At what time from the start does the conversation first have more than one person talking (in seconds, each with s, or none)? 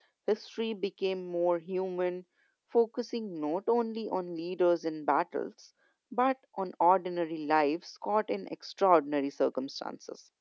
none